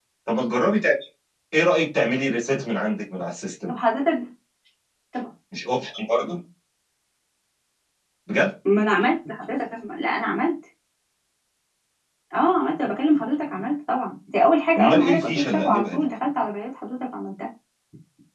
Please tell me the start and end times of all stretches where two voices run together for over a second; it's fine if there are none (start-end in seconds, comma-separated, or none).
14.8-16.0